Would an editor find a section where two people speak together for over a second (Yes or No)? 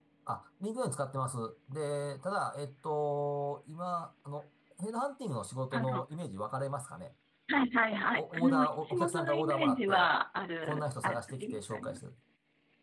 Yes